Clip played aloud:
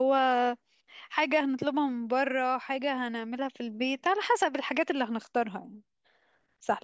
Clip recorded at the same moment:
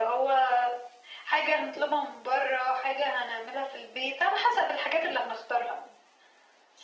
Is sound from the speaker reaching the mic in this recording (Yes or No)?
Yes